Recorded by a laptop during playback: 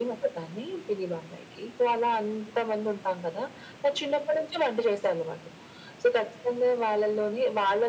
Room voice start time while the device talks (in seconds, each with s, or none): none